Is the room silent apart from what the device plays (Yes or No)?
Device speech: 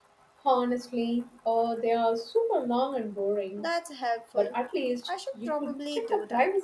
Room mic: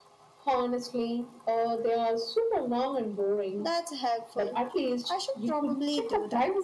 Yes